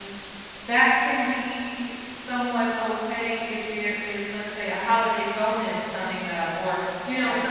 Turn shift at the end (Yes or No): No